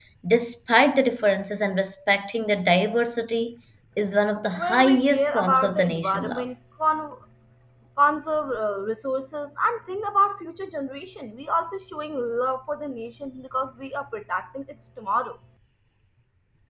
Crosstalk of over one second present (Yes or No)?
Yes